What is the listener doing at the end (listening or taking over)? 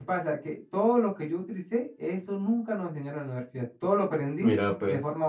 listening